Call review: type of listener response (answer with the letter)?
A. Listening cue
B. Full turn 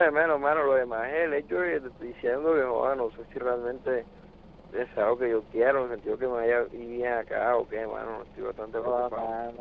B